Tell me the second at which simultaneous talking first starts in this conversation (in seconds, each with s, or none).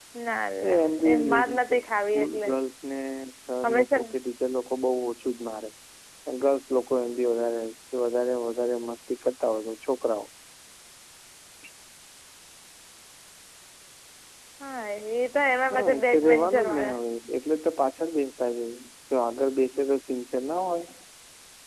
0.7 s